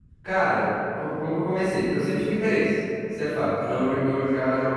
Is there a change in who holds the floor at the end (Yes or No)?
No